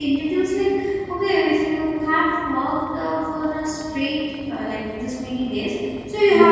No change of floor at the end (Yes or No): Yes